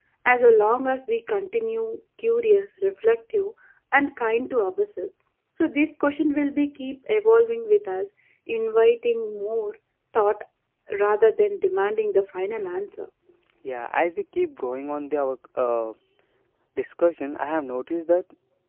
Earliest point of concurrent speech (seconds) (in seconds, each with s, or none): none